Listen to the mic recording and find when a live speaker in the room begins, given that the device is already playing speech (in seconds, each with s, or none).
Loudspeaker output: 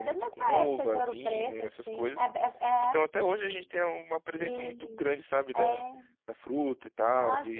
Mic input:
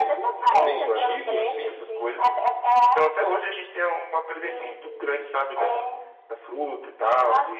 0.6 s